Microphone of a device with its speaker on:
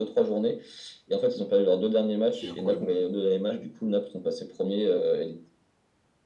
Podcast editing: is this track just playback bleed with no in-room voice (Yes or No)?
No